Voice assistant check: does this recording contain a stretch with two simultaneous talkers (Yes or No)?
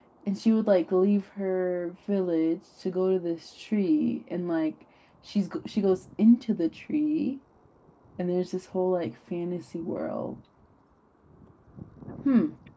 No